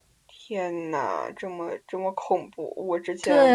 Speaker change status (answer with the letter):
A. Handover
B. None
A